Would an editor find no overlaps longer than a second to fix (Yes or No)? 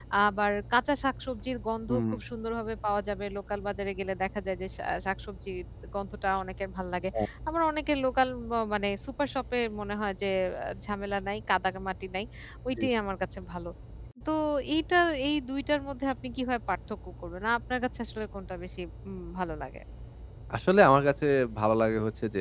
Yes